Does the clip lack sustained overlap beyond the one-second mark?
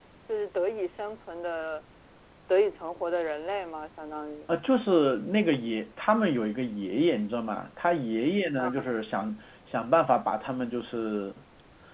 Yes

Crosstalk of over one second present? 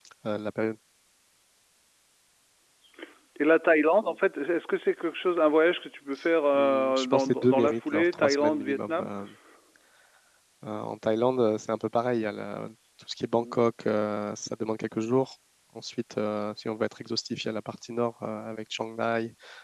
Yes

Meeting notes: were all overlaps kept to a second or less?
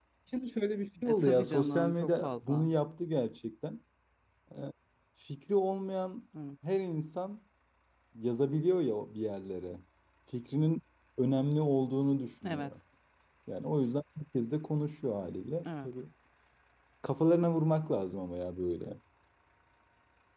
No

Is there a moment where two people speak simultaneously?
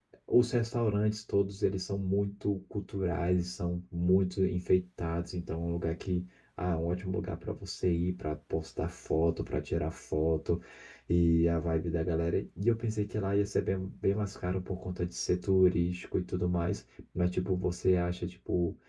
No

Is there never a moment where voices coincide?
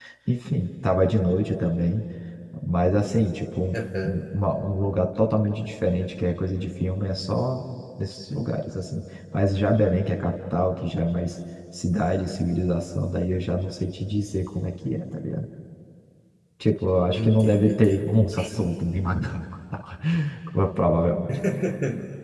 No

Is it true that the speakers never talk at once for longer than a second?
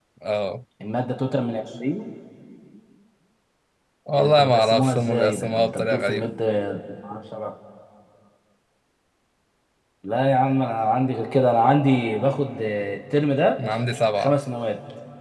No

